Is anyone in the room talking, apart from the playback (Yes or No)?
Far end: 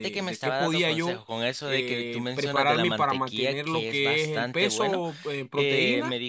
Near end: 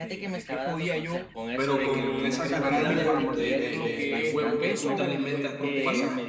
Yes